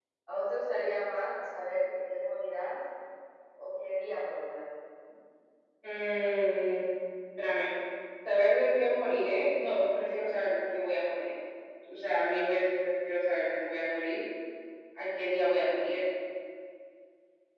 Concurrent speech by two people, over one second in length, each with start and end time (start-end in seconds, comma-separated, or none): none